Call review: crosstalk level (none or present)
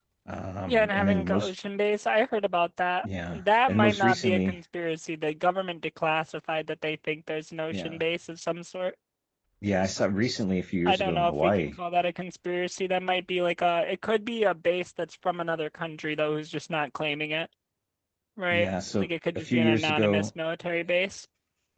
present